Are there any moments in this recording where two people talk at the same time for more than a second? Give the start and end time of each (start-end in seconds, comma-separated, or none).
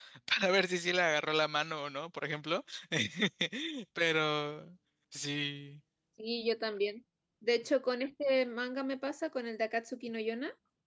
none